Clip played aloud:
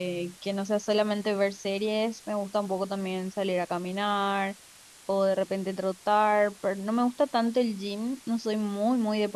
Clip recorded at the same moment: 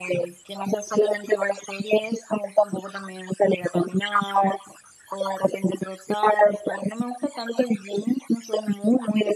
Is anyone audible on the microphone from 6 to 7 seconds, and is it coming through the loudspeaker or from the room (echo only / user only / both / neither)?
echo only